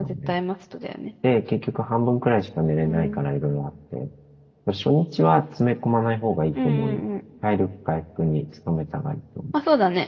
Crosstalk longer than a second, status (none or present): none